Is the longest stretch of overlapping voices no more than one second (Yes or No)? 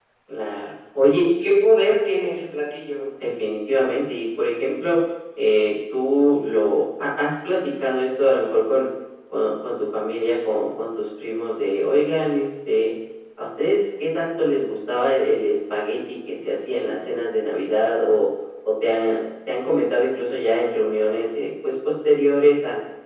Yes